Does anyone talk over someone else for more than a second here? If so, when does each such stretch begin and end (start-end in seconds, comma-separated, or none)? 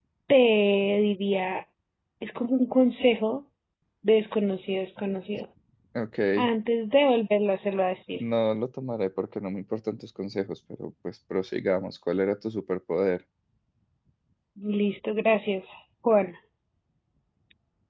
none